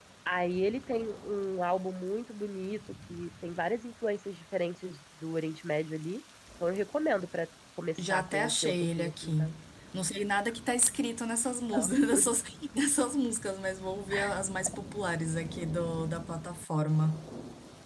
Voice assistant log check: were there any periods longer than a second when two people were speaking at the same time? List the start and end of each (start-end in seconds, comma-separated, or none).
8.0-9.5